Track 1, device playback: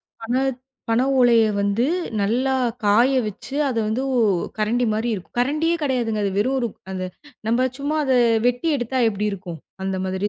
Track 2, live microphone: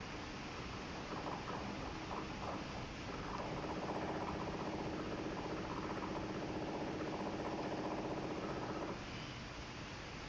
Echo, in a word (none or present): none